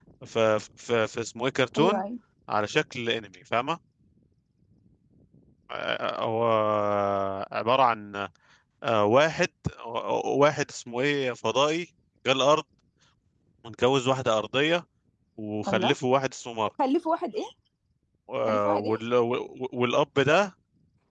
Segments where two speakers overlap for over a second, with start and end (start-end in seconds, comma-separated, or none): none